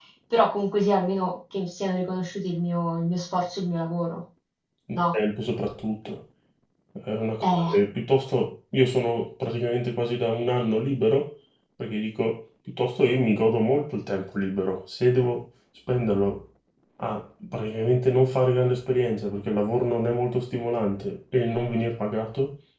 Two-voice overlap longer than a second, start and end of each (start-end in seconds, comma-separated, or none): none